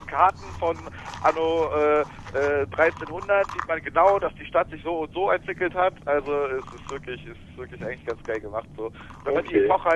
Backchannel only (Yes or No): Yes